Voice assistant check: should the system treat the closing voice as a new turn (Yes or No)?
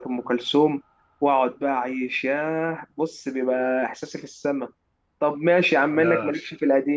No